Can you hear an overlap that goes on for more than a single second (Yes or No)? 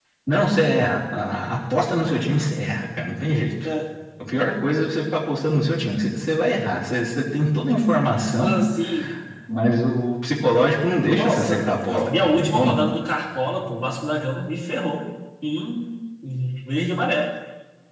Yes